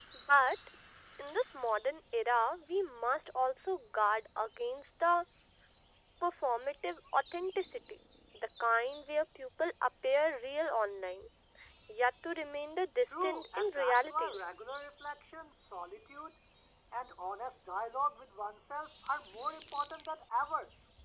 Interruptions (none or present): present